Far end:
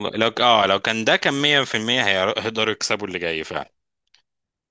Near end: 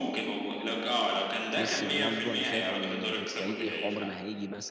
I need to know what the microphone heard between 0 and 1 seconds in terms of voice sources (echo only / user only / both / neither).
echo only